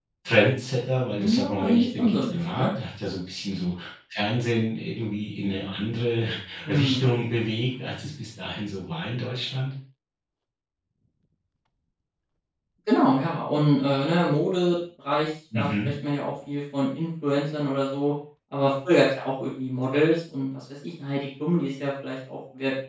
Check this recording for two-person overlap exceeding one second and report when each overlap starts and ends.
1.2-2.6

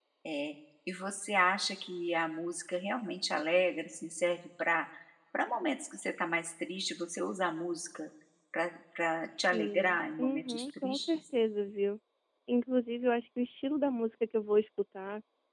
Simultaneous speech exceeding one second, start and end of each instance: 9.5-11.2

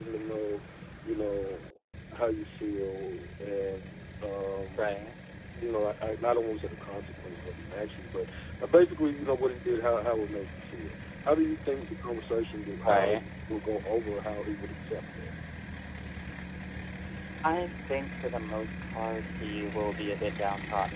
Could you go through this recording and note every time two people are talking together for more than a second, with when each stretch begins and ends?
none

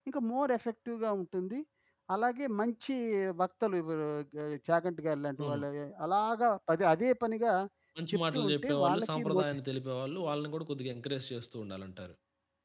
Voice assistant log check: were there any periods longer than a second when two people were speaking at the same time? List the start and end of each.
8.1-9.4

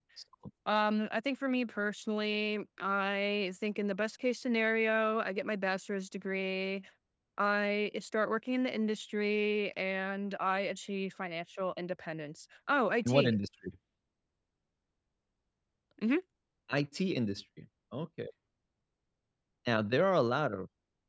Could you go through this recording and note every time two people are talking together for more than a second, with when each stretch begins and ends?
none

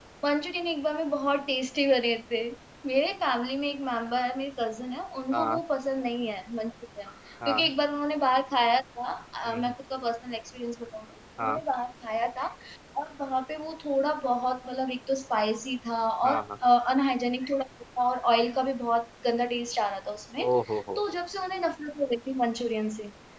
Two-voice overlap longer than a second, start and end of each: none

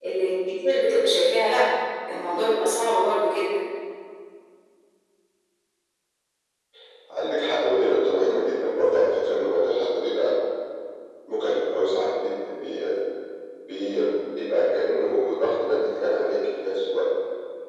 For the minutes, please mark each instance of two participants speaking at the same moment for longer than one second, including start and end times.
none

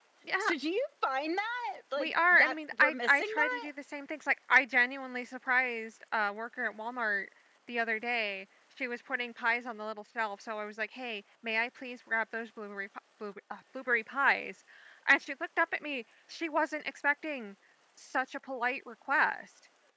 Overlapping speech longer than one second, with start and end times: 2.0-3.7

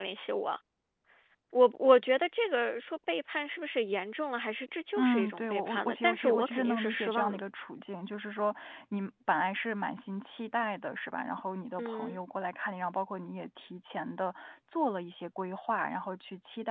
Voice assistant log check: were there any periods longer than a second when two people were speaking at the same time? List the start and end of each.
5.0-7.4

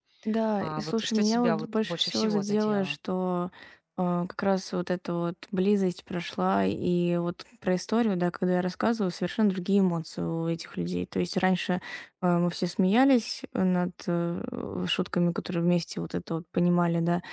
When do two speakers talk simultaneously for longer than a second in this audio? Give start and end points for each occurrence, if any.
0.6-3.0

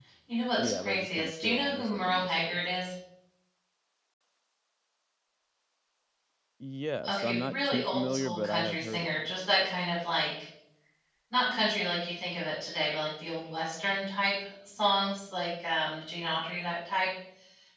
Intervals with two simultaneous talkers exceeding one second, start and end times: 0.6-2.6, 7.1-9.3

